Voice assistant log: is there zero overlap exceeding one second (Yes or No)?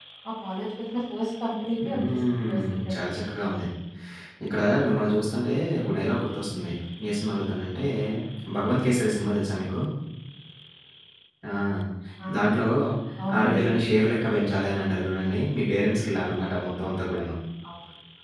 No